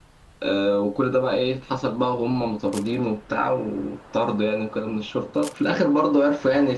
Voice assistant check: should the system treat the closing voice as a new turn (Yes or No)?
No